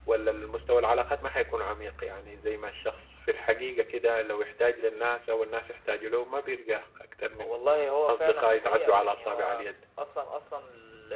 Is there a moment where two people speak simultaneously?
Yes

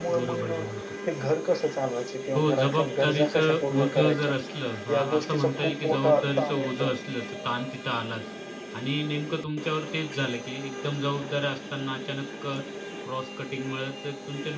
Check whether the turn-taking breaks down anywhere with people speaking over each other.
Yes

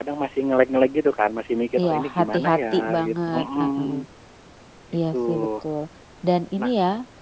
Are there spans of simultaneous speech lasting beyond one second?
Yes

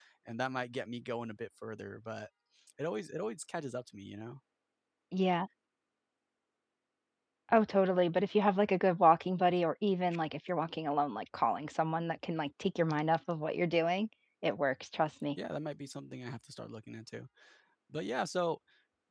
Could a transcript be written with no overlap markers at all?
Yes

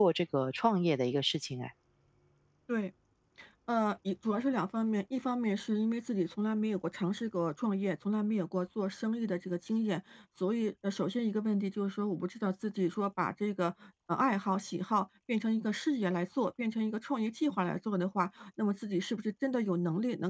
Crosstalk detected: No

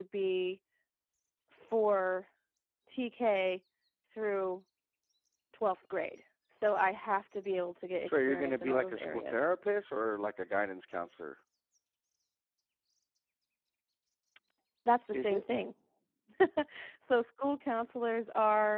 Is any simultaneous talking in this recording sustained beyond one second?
Yes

